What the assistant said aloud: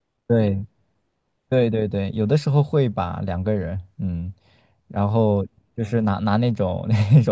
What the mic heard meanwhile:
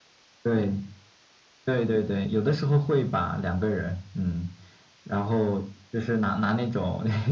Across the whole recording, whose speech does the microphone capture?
echo only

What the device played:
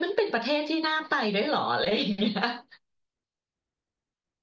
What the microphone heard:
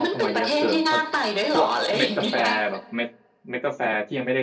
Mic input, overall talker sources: both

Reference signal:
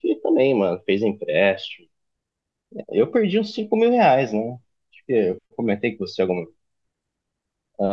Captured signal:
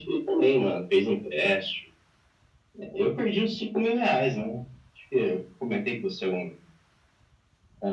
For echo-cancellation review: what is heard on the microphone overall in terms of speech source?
echo only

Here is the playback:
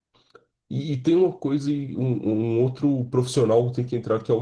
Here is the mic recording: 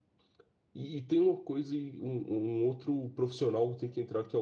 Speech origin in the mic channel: echo only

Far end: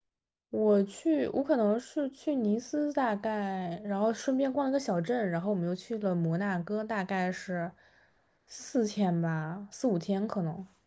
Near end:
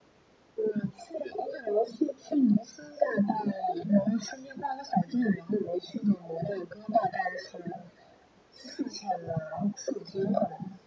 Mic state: echo only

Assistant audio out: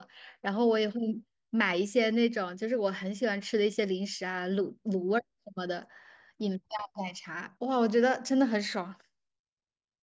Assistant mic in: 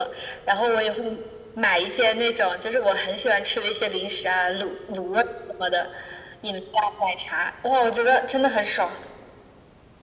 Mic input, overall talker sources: echo only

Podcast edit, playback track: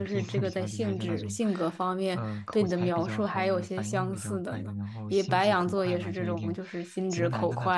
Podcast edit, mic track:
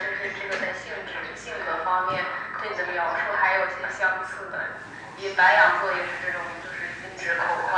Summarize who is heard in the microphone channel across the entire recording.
echo only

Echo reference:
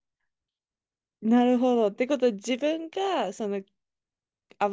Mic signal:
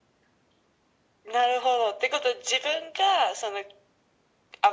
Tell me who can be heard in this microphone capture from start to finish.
echo only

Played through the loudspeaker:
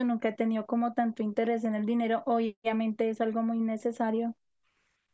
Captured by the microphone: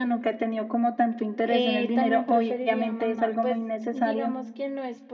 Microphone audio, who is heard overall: both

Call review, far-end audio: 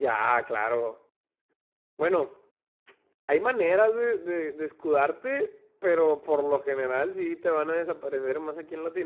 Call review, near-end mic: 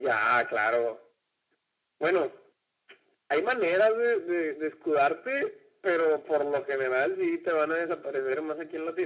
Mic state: echo only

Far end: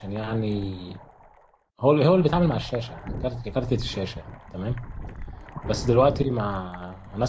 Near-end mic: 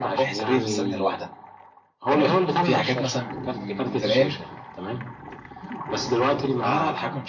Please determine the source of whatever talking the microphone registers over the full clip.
both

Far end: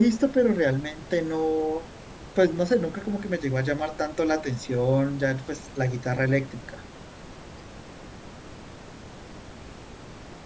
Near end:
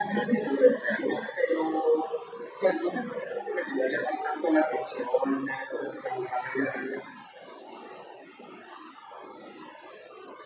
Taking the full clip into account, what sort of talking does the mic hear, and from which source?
echo only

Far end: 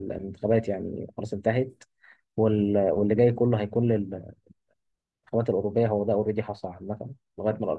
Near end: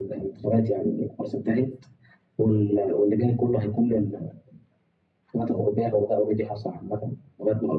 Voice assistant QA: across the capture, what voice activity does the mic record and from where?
echo only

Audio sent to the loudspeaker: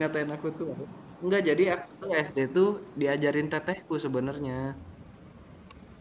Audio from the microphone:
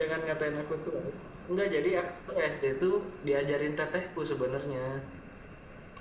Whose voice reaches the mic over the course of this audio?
echo only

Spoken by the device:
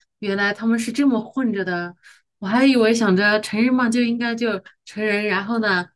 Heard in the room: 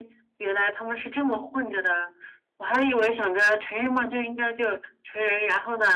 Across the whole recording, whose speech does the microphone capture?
echo only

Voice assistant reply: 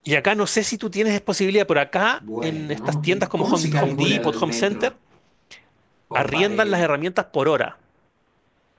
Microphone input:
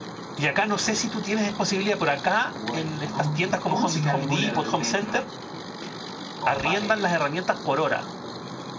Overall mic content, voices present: echo only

